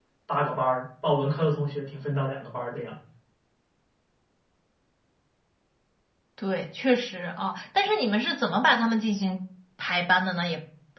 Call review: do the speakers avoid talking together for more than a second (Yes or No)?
Yes